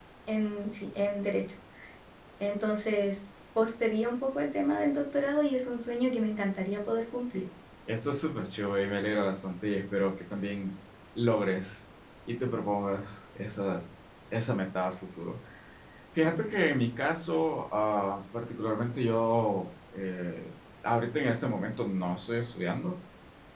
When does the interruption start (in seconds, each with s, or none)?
none